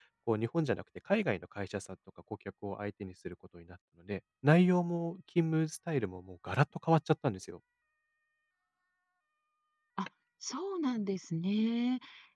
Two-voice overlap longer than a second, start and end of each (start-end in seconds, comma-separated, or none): none